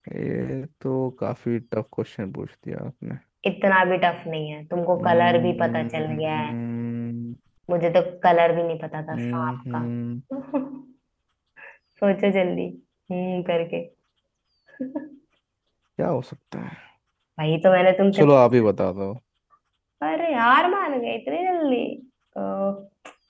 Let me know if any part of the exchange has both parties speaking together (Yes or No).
Yes